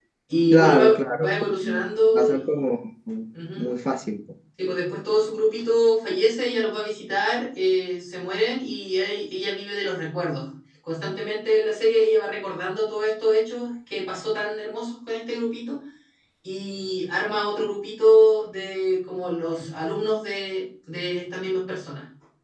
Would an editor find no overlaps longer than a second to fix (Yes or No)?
No